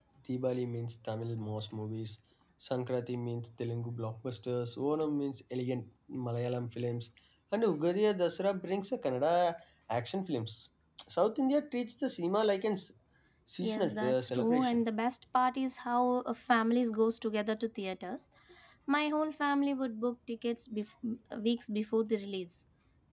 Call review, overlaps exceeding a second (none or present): present